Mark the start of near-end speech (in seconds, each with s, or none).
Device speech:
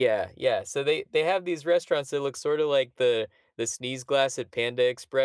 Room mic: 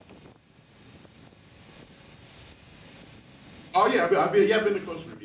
3.7 s